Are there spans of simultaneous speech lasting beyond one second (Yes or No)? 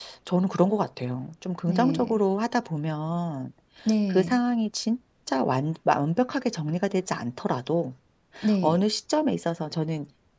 No